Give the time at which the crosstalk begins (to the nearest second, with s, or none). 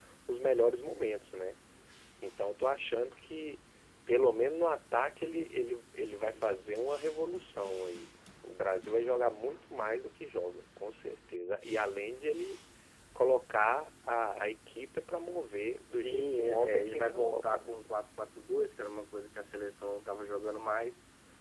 16 s